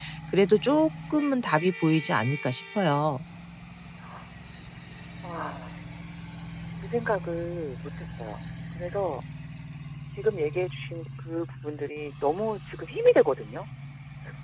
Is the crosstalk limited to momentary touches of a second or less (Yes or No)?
Yes